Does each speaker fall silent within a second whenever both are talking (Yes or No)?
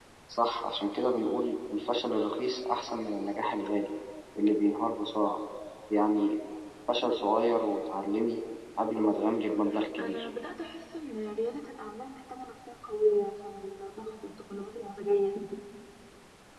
Yes